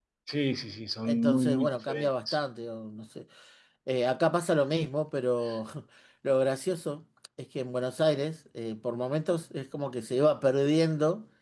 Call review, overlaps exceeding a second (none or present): present